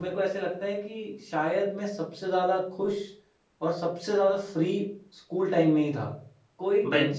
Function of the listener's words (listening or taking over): listening